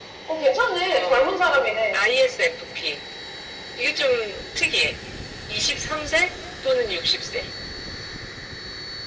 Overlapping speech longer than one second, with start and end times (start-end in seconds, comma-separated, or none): none